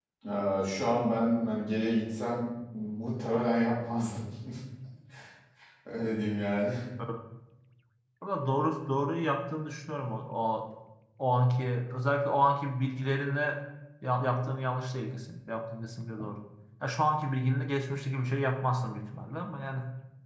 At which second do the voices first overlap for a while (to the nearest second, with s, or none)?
none